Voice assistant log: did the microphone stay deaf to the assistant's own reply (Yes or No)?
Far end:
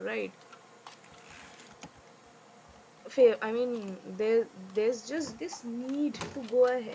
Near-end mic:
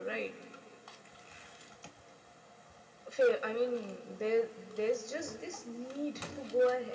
No